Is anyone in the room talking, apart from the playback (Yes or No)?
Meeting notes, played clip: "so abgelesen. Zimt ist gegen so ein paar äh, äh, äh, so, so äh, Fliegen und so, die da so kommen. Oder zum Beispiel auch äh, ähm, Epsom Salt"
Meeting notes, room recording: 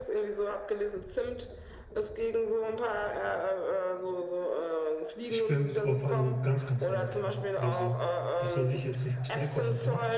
Yes